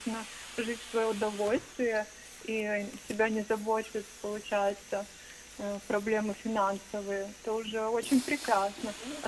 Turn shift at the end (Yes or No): No